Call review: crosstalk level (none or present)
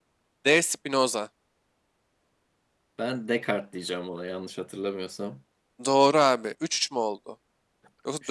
none